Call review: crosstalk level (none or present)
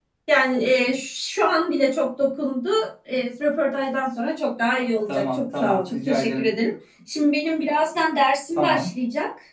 present